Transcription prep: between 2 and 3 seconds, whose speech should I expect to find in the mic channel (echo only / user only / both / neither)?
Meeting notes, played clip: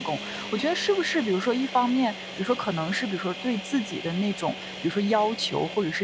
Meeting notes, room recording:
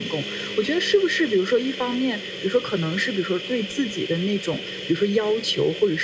echo only